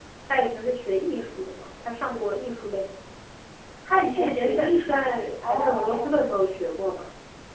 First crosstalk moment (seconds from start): 4.2 s

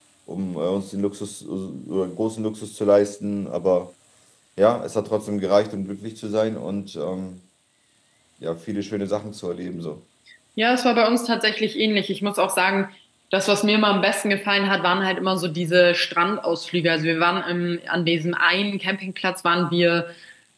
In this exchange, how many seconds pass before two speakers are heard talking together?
none

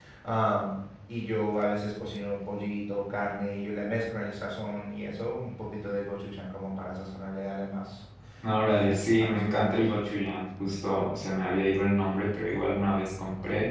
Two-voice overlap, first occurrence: 8.6 s

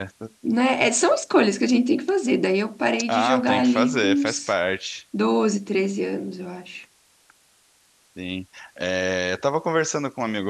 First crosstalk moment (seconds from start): 3.1 s

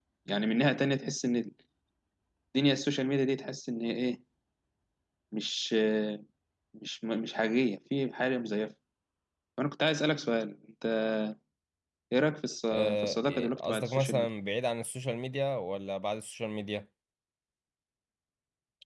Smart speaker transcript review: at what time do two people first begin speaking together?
12.7 s

